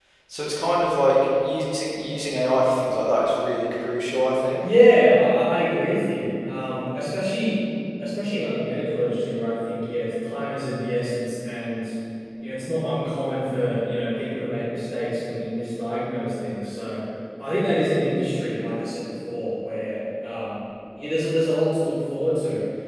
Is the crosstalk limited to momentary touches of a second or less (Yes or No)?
Yes